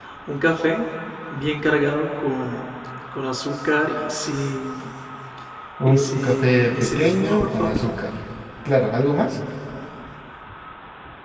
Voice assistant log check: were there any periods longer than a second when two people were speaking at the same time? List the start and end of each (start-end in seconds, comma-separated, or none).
5.8-7.8